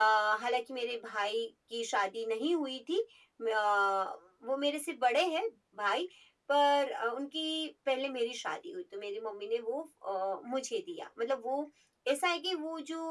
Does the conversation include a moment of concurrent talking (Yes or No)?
No